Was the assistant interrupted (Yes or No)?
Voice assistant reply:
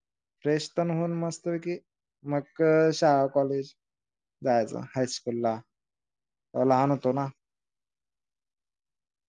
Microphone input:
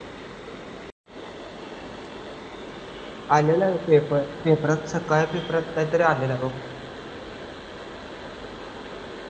Yes